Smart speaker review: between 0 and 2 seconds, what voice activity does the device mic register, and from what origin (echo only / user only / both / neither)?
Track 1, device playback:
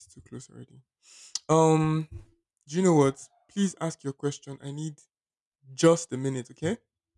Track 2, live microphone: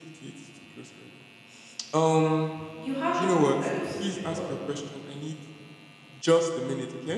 echo only